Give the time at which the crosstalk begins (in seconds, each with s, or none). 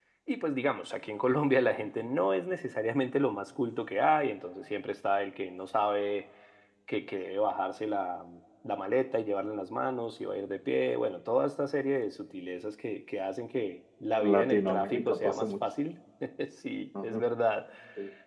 14.2 s